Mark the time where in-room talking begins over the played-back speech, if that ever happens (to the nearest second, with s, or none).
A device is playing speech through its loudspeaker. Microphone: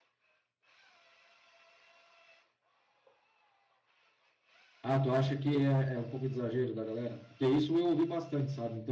5 s